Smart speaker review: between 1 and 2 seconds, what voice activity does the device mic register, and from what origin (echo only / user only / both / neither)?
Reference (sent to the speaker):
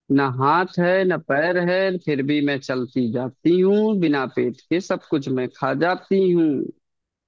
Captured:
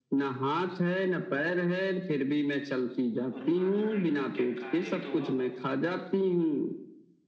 echo only